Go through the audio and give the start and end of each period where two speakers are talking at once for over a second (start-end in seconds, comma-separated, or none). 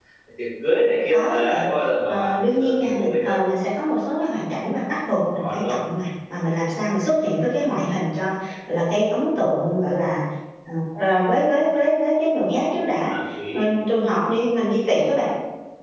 2.1-3.4